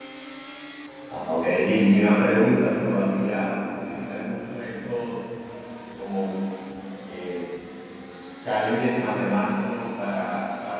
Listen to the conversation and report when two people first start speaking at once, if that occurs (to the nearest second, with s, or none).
none